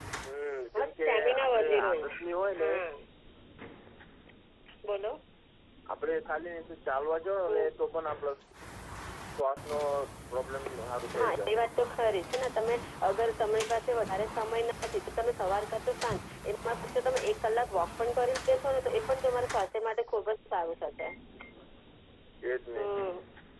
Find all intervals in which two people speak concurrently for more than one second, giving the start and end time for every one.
0.8-2.1

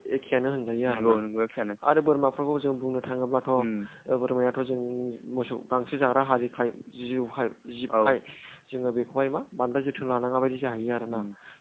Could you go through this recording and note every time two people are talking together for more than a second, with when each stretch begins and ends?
none

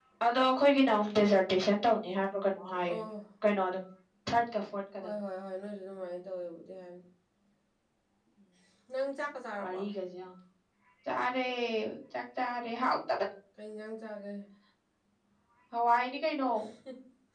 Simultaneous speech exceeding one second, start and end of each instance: none

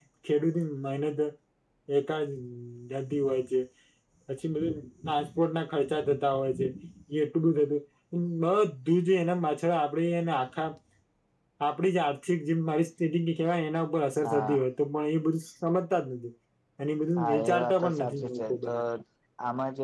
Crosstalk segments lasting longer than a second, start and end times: 17.2-18.8

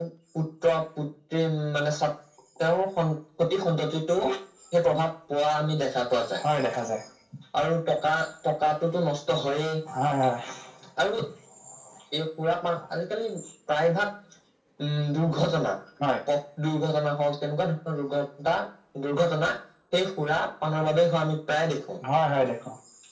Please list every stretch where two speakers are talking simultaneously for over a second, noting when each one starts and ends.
none

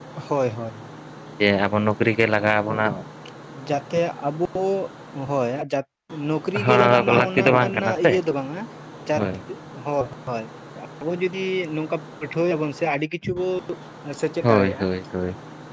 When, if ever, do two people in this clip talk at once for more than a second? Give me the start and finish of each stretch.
6.7-8.1

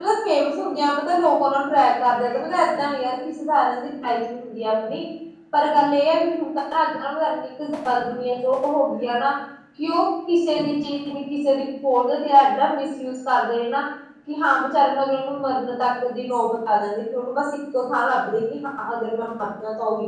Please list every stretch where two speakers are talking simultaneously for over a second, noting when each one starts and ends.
none

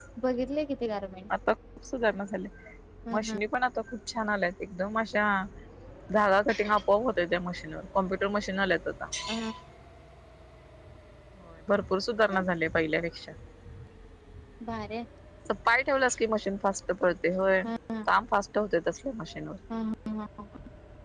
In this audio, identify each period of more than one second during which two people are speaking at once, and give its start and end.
none

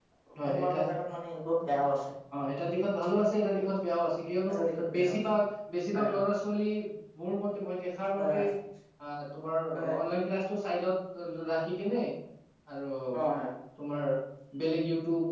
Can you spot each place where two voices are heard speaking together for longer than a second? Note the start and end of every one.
none

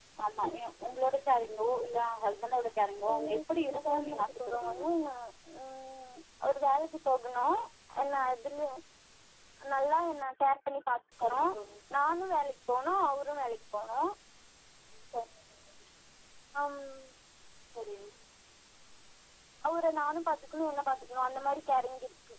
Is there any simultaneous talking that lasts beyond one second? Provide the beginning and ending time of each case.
3.1-4.8

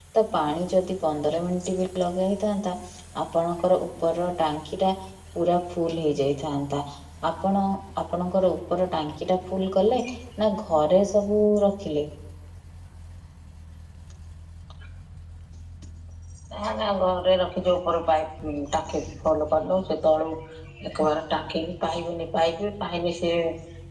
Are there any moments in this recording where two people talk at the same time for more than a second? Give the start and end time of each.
none

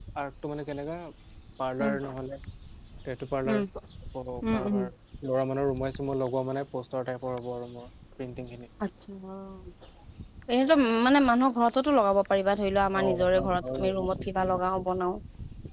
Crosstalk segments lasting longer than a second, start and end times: 13.0-14.6

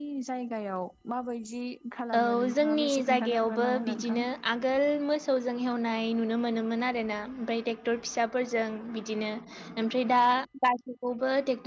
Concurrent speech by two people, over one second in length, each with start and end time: 2.2-4.2

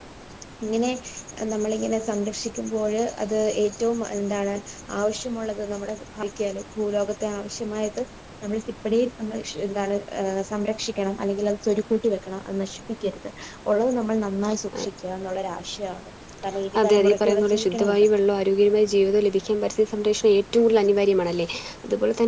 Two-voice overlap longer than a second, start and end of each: 16.8-18.1

